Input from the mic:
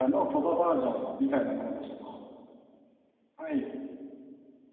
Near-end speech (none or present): present